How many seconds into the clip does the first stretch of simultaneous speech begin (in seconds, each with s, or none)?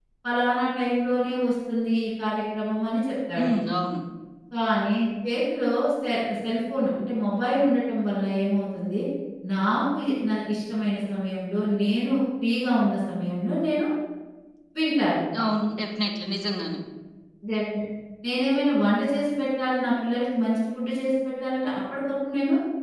none